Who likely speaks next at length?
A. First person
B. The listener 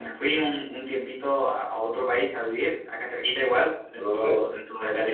A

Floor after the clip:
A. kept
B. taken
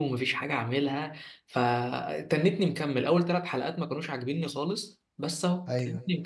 A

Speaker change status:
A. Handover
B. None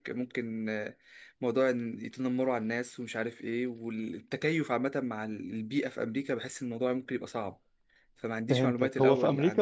A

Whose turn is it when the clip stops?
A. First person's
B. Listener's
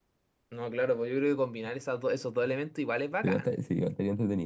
B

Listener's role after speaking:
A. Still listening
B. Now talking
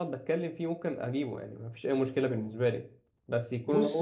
B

